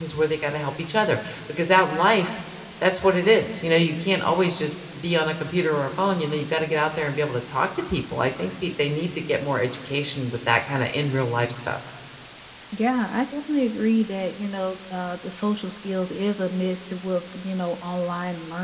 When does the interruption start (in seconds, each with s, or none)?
none